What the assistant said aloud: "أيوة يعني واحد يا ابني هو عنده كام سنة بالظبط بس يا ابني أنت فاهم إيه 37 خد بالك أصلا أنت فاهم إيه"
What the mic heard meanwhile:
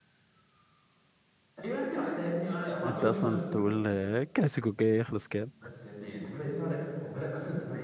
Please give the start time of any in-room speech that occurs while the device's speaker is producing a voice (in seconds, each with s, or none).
2.8 s